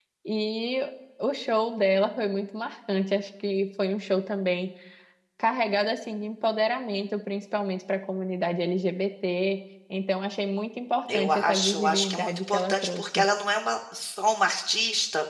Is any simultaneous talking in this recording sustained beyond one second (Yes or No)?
Yes